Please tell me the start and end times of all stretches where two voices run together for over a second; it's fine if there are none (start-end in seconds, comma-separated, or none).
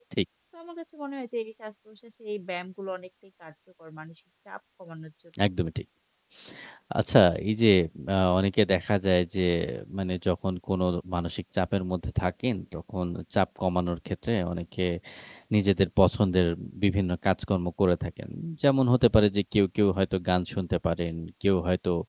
none